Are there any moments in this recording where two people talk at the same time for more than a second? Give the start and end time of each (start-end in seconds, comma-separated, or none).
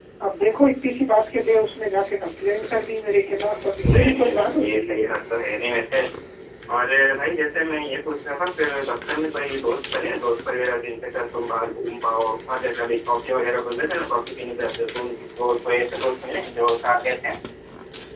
3.8-5.1